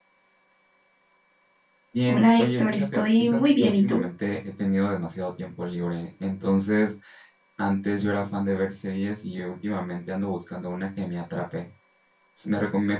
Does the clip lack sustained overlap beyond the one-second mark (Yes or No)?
No